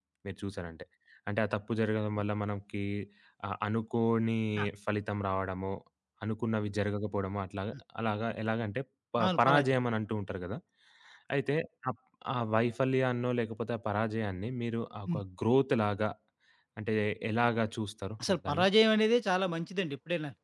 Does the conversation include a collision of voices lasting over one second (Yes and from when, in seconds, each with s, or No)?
No